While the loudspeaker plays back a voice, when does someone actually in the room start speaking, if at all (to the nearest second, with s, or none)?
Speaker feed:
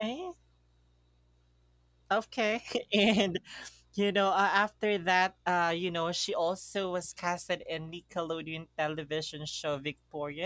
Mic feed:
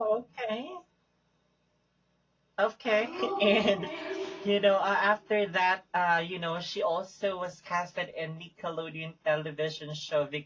3 s